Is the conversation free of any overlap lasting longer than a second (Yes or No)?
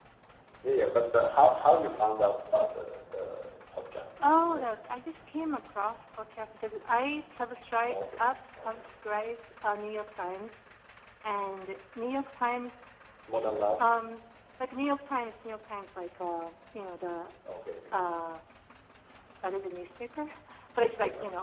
Yes